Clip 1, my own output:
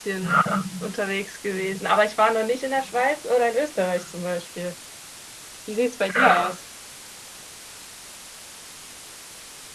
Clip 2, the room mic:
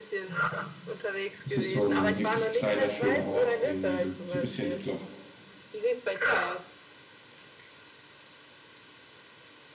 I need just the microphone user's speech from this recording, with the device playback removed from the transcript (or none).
Es ist so ein richtig kleiner, schöner Ort, irgendwie so, so ein bisschen, ich glaube,